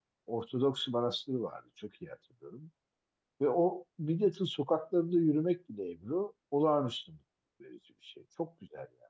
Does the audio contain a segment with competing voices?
No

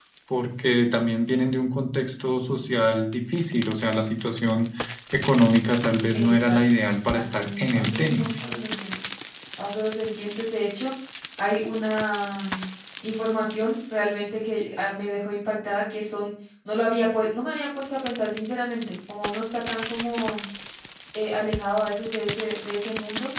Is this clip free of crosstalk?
No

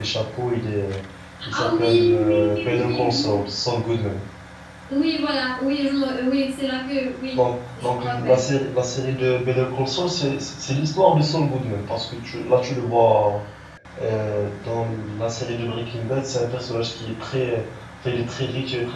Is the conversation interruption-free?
No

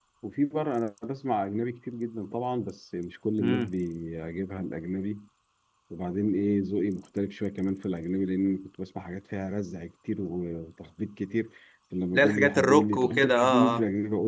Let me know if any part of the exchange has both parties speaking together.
Yes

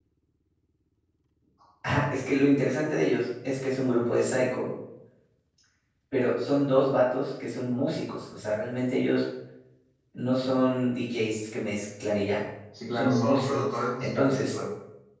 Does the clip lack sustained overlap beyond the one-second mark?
No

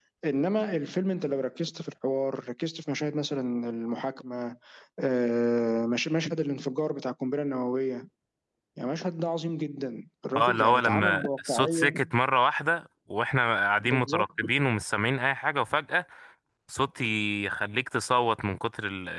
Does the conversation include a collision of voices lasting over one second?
Yes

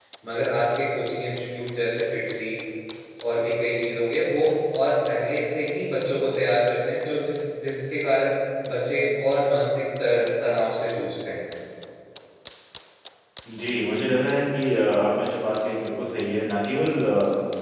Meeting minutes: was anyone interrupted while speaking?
No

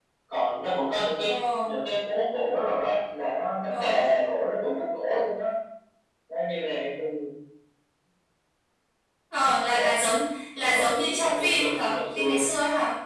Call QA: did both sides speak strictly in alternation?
No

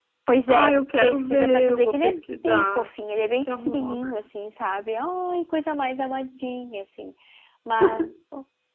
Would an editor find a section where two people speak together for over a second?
Yes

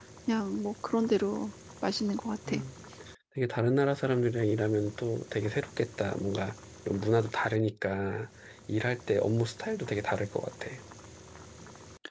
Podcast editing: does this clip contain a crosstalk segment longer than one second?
No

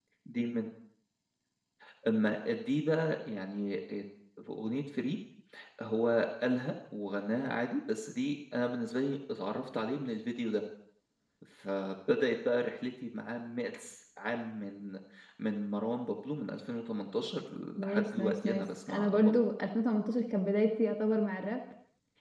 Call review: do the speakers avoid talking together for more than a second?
No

